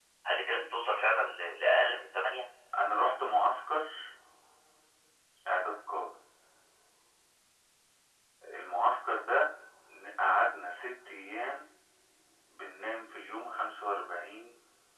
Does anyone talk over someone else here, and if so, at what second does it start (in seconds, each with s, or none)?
none